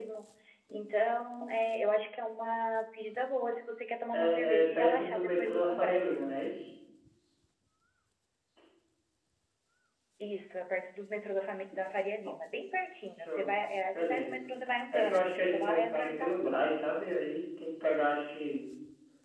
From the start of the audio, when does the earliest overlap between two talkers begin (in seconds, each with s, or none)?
4.1 s